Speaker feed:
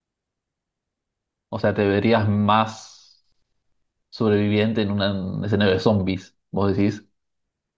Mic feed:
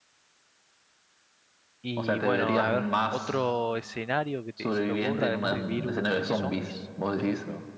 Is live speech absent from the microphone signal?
No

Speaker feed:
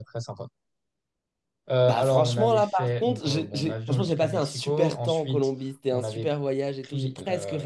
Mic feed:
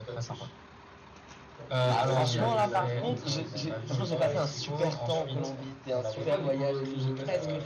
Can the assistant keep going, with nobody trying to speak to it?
No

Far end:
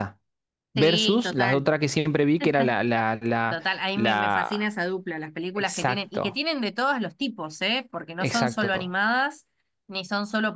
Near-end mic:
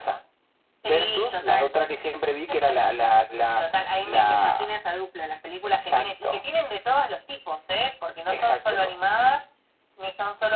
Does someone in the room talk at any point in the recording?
No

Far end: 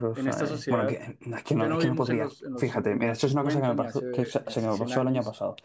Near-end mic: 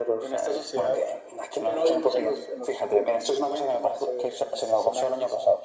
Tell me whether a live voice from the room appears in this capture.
No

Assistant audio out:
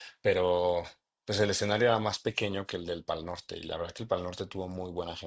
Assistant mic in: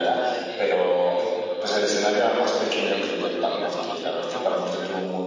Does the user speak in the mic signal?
Yes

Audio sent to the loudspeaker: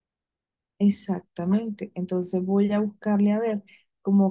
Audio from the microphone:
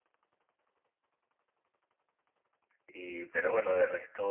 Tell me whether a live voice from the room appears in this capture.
Yes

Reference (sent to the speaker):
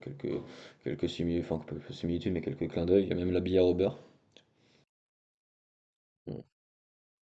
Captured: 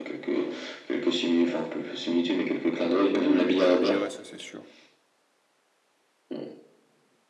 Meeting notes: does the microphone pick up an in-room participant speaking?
Yes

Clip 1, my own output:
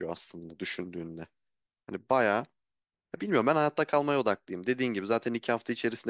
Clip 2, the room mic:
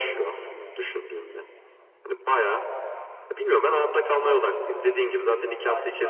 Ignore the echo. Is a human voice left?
Yes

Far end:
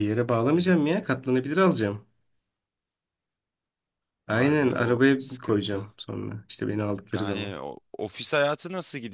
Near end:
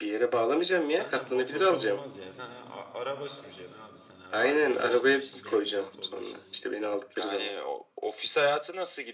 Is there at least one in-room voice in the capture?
Yes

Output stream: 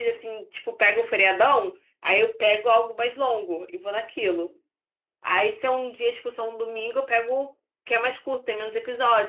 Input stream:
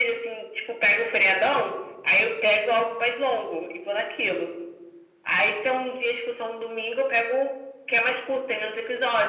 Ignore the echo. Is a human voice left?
No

